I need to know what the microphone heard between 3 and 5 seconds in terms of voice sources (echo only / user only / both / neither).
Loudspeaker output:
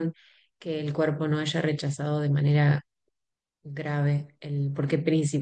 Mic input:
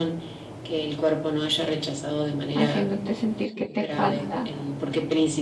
both